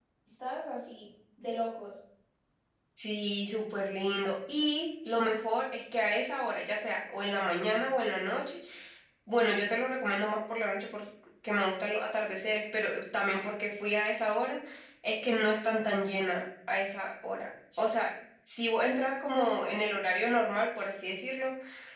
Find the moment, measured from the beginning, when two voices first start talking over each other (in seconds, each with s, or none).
none